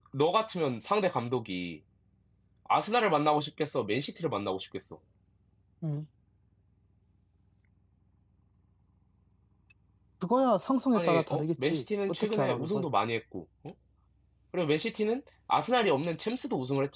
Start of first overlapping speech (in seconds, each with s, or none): 10.9 s